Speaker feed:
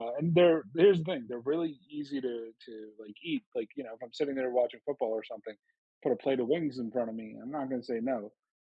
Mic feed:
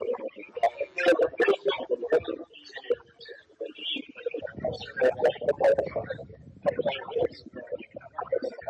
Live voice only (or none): none